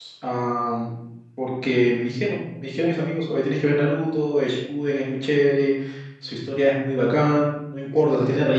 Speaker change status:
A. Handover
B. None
B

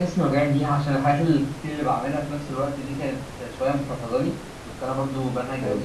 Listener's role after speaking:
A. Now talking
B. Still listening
B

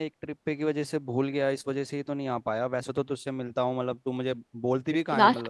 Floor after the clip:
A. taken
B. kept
A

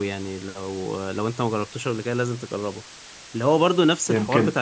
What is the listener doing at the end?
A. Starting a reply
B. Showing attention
B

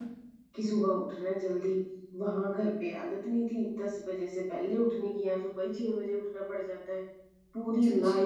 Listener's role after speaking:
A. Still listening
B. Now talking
A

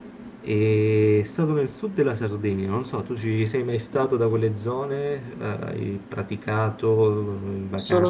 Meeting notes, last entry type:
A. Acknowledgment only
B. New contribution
B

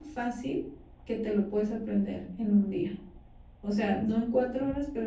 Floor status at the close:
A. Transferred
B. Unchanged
B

